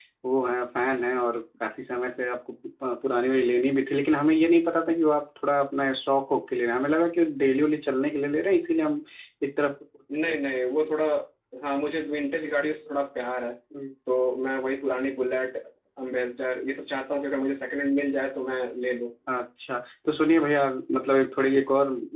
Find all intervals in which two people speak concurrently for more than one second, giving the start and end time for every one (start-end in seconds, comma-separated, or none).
none